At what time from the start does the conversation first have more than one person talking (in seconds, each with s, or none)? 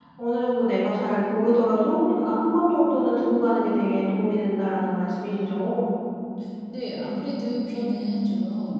none